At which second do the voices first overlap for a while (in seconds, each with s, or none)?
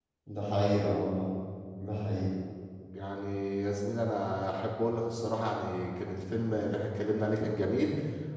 none